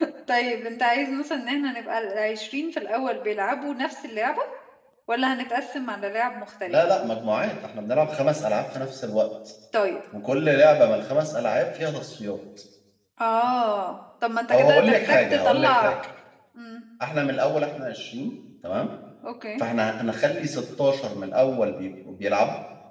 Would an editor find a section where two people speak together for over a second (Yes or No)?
Yes